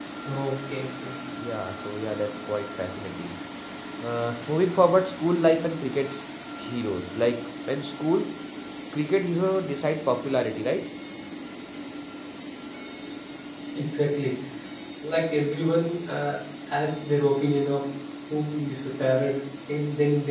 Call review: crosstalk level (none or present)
none